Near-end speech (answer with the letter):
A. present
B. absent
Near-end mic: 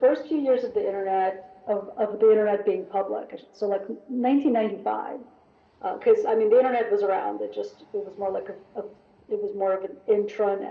B